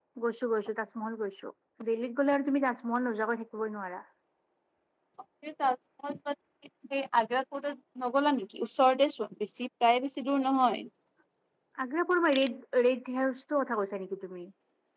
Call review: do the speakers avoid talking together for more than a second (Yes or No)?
Yes